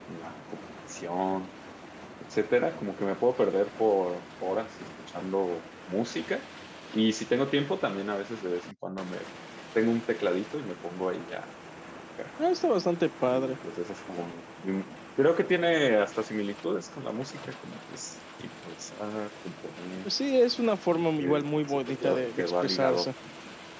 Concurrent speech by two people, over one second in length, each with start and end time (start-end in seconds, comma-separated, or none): 20.9-23.1